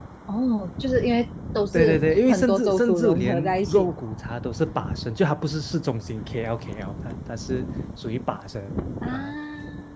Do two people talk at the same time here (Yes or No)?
Yes